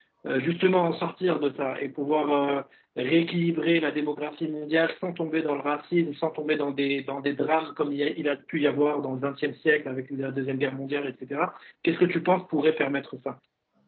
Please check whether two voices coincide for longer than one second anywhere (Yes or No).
No